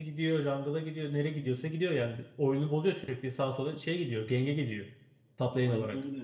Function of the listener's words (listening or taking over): taking over